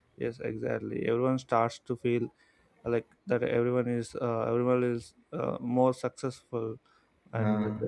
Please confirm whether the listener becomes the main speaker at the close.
No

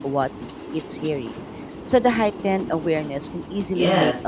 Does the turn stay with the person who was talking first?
No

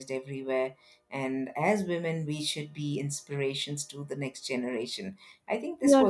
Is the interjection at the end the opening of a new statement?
No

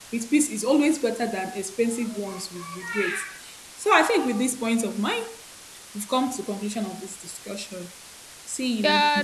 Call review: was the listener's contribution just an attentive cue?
No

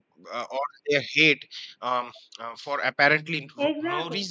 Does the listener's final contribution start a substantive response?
No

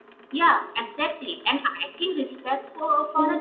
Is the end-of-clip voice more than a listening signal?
No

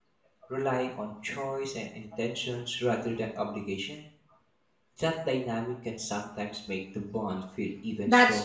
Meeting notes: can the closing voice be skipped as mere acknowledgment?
No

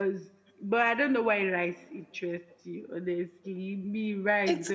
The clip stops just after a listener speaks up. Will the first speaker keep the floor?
No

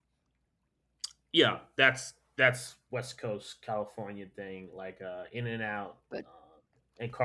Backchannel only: Yes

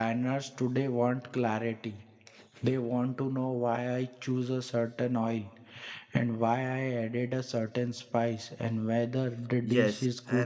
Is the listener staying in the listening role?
No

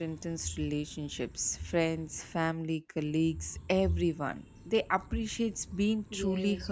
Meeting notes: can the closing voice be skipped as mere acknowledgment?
No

